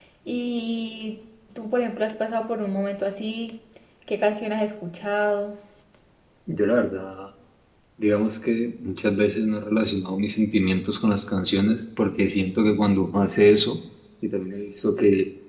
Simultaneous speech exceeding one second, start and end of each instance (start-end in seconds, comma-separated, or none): none